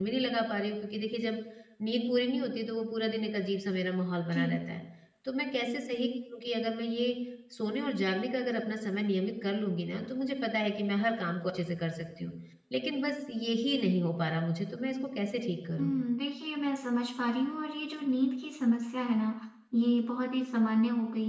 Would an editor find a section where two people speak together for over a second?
No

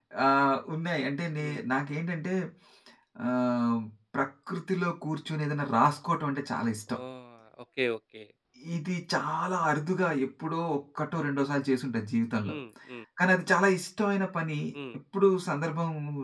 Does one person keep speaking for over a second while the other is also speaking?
No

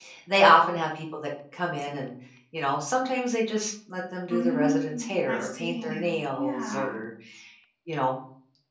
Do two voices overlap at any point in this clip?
Yes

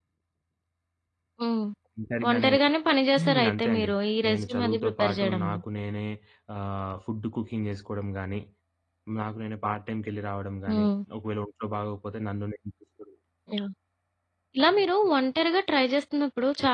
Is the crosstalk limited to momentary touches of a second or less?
No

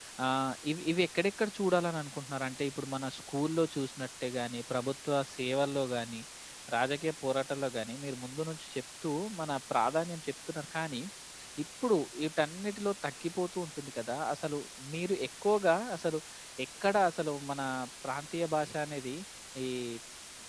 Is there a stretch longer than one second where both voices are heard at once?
No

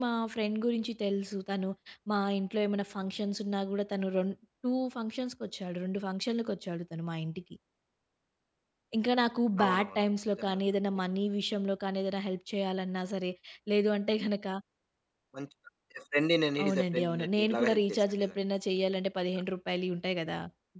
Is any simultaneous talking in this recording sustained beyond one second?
Yes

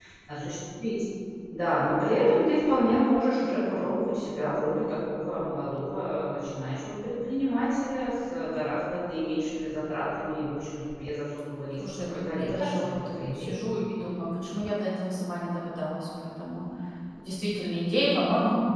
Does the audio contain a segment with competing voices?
Yes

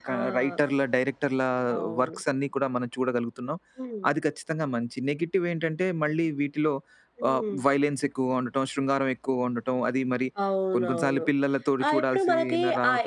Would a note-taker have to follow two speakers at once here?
Yes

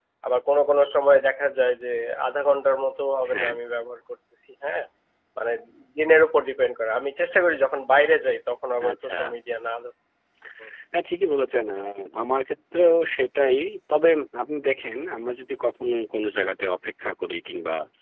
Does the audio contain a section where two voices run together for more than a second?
No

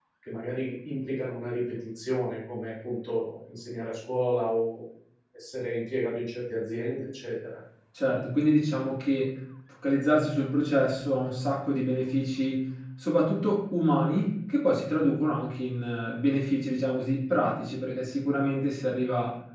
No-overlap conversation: Yes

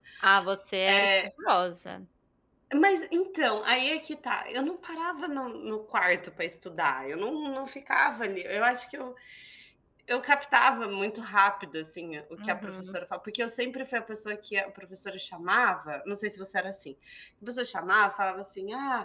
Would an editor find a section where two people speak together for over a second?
No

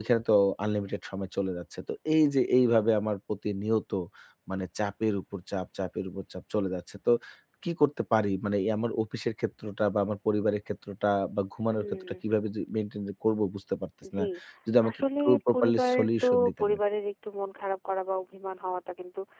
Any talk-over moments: Yes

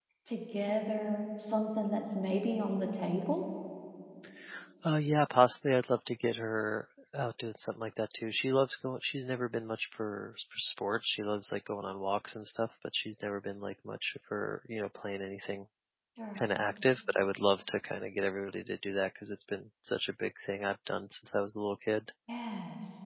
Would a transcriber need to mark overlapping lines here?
No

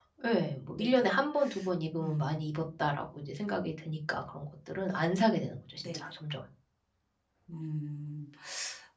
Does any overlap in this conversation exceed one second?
No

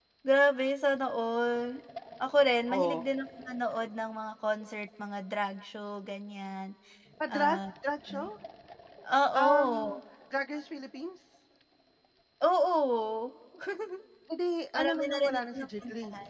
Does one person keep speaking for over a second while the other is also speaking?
Yes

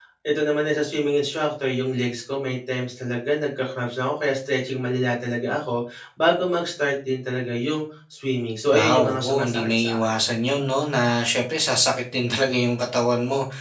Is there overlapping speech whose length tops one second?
Yes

